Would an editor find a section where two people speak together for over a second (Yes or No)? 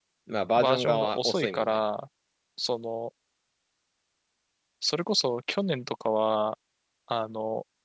Yes